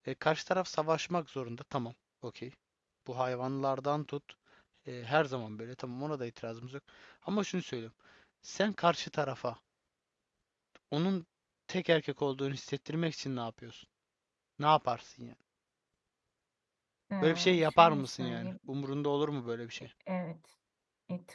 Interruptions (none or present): present